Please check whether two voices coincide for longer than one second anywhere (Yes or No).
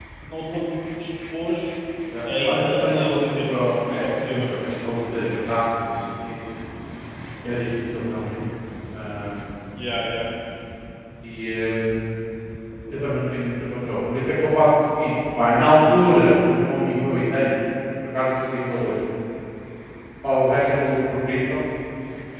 Yes